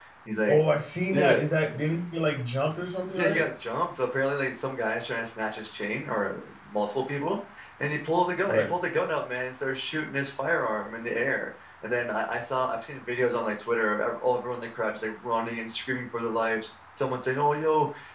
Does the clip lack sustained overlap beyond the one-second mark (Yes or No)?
Yes